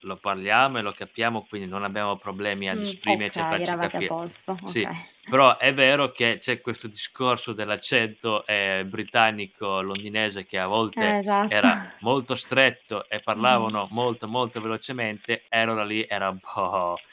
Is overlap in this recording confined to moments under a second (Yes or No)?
No